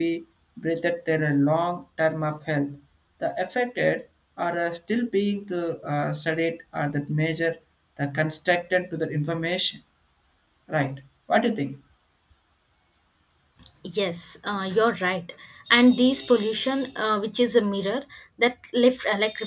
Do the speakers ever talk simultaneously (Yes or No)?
No